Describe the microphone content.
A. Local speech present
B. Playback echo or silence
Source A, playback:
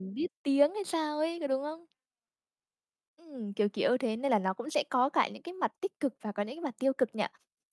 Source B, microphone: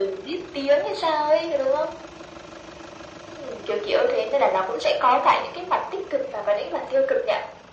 B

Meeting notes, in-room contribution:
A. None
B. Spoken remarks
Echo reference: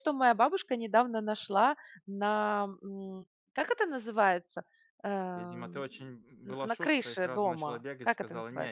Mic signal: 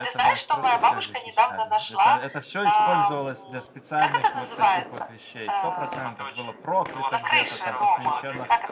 B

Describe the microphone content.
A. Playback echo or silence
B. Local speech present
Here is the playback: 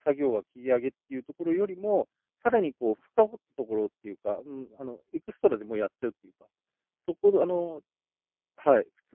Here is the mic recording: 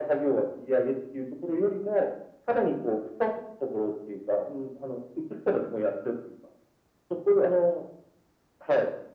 A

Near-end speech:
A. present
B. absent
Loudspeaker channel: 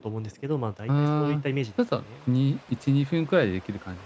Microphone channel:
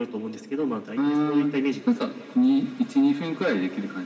B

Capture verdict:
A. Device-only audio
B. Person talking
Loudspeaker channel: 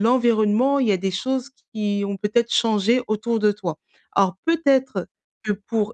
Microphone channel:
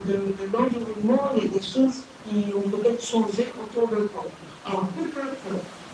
A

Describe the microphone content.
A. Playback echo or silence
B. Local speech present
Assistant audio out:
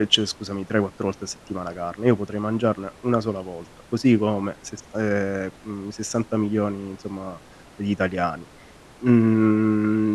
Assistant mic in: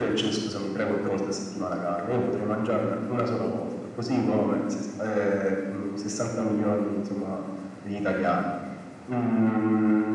A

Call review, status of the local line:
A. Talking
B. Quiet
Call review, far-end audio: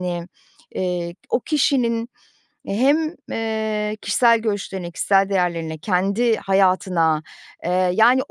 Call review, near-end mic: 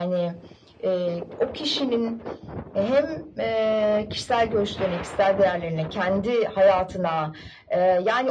B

